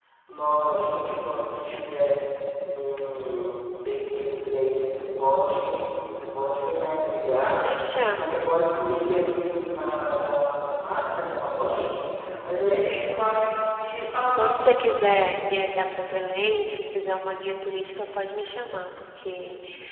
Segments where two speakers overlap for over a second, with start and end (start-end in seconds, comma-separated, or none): none